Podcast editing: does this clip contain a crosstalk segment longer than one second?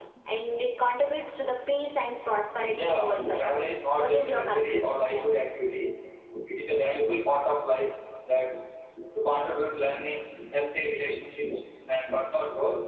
Yes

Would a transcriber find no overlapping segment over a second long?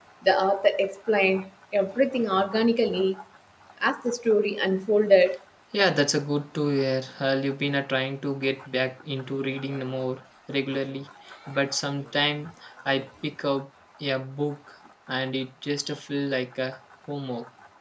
Yes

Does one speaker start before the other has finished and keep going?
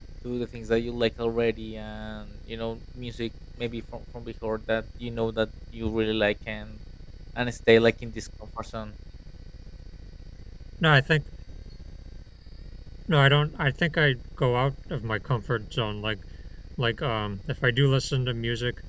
No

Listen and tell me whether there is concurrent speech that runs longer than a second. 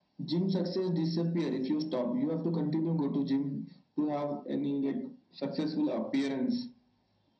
No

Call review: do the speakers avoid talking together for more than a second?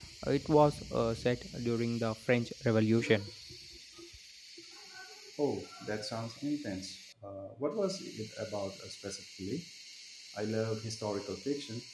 Yes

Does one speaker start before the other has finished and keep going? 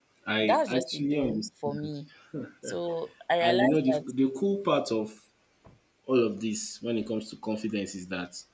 Yes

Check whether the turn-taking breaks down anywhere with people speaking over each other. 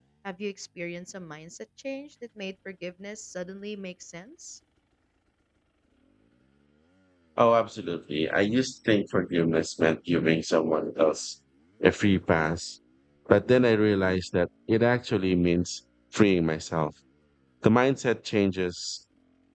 No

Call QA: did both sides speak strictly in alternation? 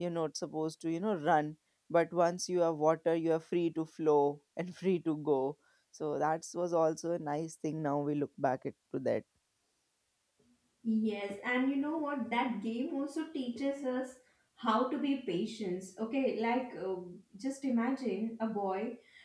Yes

